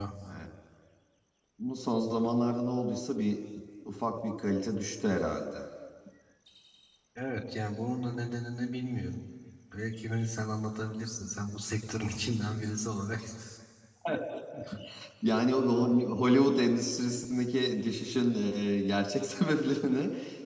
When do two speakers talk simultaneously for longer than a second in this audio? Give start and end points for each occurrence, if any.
none

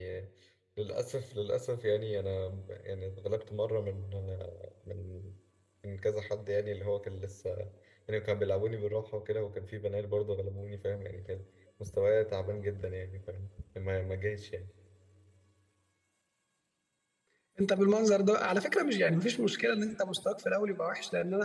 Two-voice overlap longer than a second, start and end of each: none

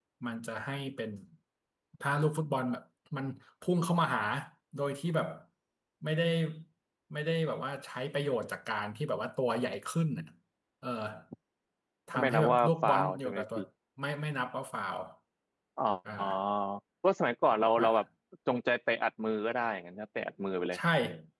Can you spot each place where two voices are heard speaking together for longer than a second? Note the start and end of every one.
12.1-13.6

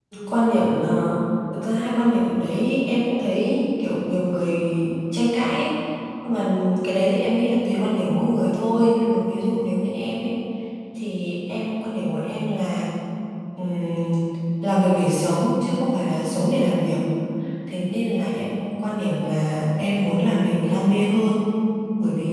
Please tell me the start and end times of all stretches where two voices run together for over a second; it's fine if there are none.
none

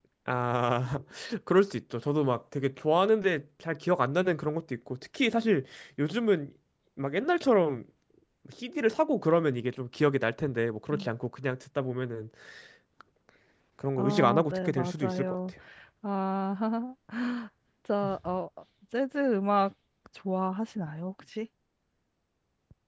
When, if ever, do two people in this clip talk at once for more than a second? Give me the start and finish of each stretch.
14.0-15.3

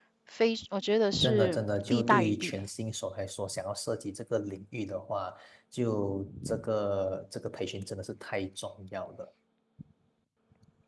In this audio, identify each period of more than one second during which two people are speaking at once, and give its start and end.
1.2-2.6

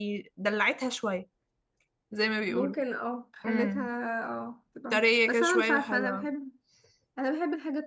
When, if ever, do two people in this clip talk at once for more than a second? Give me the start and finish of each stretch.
4.9-6.3

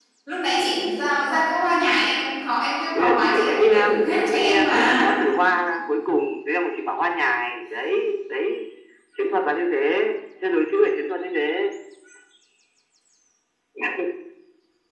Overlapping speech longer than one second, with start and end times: 2.9-5.0

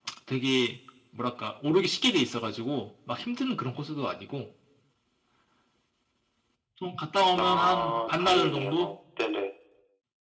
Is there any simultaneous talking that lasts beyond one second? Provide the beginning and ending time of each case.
7.4-8.7

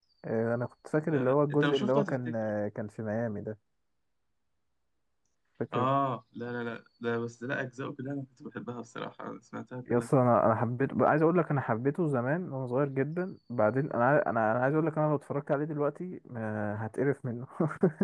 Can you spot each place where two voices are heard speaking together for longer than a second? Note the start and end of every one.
1.1-2.5

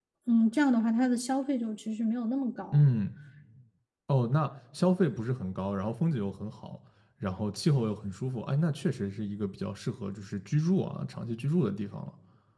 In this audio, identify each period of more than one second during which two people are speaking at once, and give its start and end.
none

